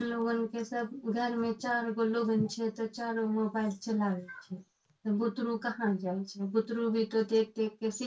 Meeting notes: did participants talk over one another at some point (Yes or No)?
No